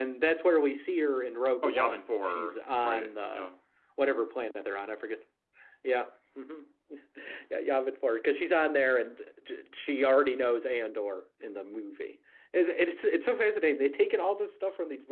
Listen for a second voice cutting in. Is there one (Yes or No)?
Yes